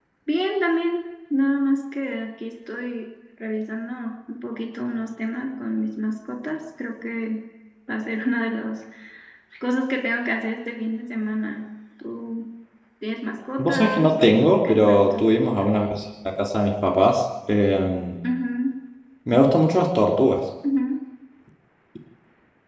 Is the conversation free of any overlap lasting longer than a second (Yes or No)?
No